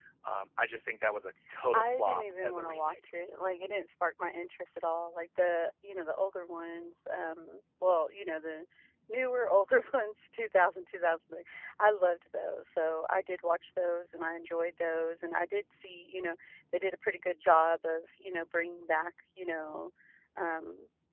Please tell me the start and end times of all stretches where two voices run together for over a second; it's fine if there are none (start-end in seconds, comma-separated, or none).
1.7-3.0